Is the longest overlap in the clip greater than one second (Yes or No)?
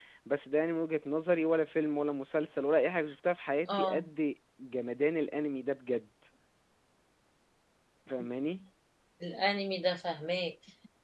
No